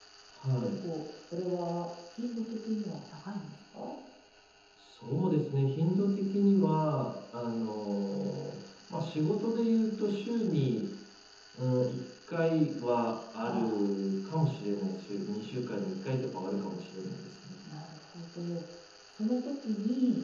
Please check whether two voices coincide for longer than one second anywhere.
No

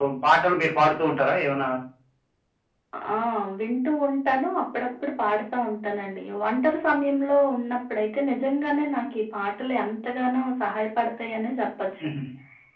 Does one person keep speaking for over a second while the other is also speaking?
No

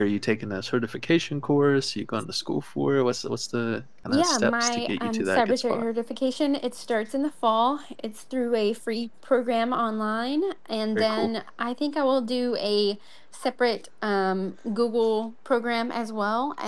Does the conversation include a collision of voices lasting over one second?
Yes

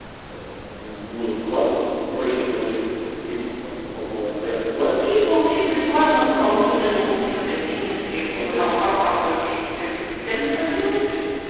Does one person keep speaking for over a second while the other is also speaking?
Yes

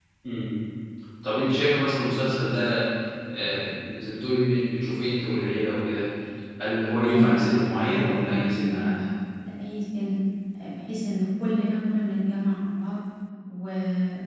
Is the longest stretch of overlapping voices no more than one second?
No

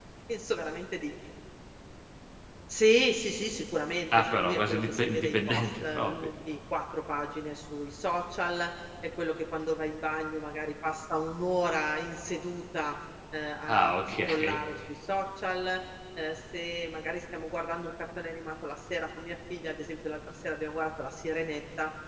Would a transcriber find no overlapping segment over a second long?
No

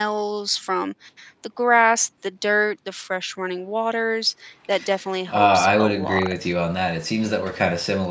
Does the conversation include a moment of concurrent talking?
Yes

